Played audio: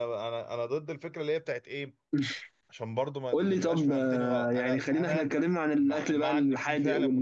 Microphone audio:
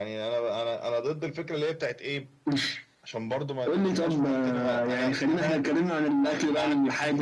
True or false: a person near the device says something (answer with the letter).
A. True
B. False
B